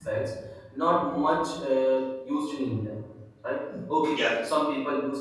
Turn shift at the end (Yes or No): No